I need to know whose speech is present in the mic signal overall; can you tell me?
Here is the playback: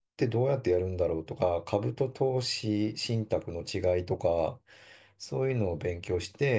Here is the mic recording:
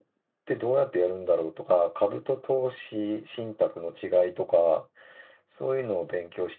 echo only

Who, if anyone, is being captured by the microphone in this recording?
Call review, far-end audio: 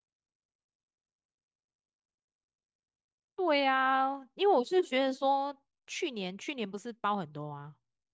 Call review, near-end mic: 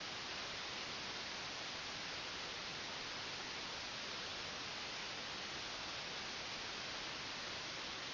neither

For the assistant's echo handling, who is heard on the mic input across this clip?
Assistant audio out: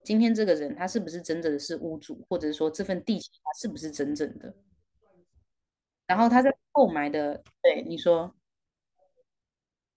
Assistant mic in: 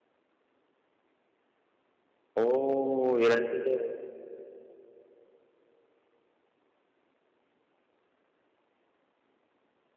user only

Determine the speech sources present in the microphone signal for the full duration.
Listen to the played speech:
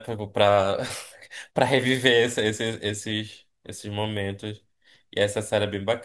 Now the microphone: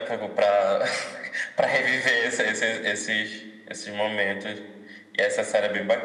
echo only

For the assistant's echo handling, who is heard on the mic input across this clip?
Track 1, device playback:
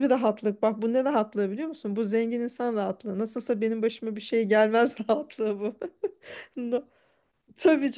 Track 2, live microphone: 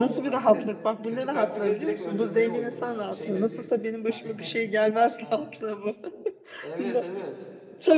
both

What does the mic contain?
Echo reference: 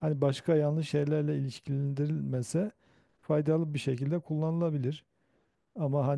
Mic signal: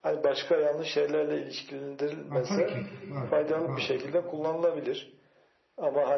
both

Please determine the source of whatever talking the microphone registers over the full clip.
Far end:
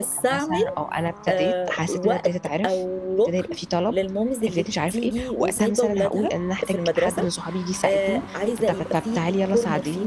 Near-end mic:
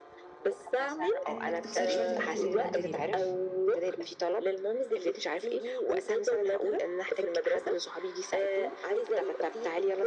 both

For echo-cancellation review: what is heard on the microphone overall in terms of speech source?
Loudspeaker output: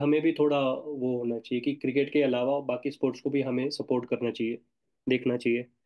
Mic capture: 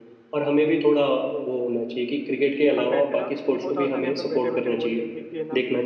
both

